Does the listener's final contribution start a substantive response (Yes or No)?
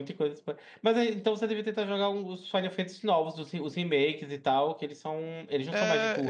Yes